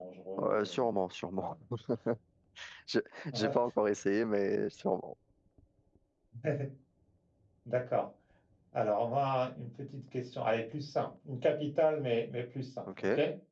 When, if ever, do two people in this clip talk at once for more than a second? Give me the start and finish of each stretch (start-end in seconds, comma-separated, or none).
none